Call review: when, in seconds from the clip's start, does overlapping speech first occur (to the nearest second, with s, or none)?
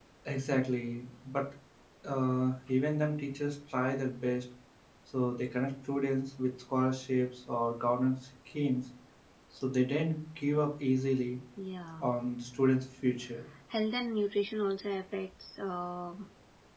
none